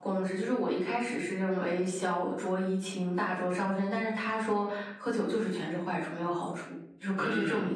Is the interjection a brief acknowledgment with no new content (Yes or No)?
No